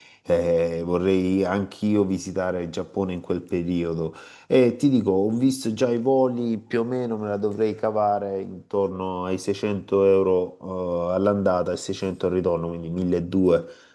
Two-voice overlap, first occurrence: none

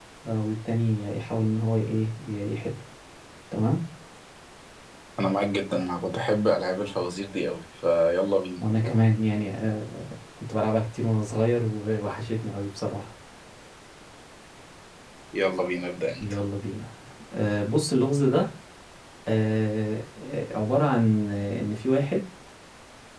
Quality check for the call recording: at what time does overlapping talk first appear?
none

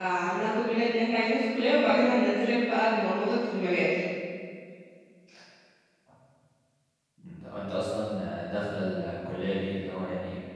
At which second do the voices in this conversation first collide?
none

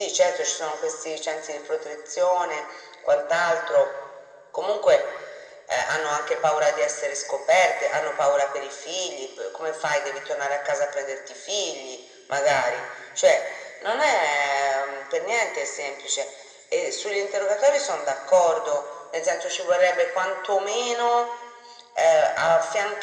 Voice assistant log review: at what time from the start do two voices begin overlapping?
none

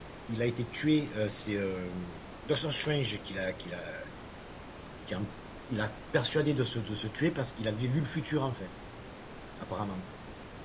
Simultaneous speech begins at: none

